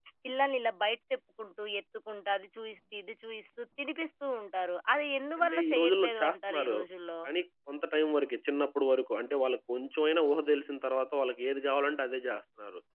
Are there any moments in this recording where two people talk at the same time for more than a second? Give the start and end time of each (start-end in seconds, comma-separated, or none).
5.4-6.8